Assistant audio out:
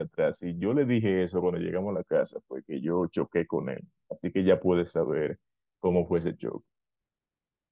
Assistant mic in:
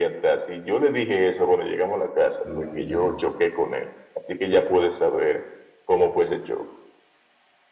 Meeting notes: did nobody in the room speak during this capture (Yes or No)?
No